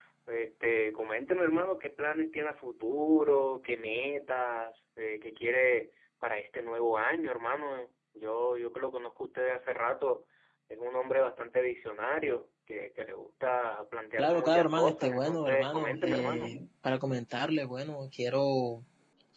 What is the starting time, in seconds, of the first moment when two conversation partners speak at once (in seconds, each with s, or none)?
14.2 s